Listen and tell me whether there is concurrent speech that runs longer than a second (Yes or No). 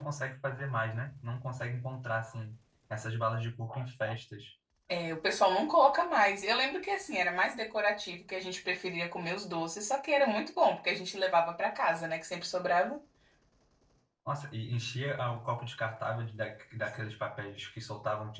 No